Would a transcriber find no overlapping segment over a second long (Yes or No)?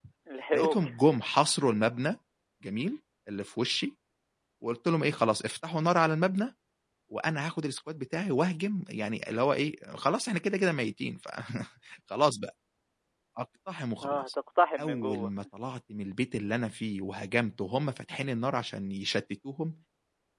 Yes